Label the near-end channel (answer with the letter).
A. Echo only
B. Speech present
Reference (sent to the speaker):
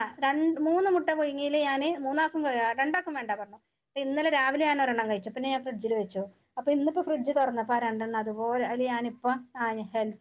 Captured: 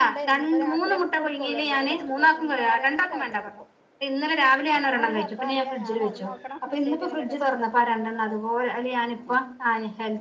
B